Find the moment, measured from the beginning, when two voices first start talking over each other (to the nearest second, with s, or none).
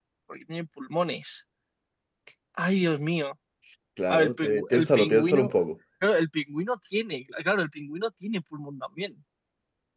4 s